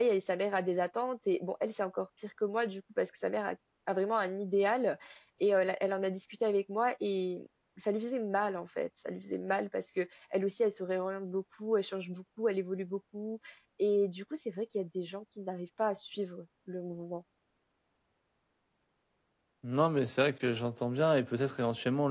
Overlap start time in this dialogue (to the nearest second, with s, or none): none